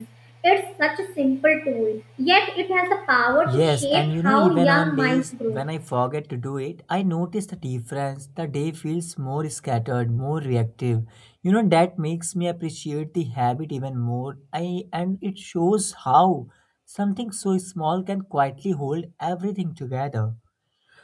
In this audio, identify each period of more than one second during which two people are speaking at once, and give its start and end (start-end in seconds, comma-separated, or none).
3.5-5.6